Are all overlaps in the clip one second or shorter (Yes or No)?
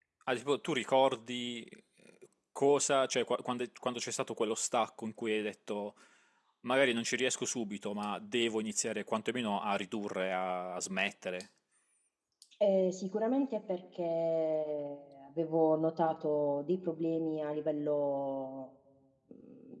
Yes